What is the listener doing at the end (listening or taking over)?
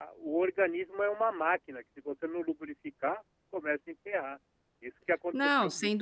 taking over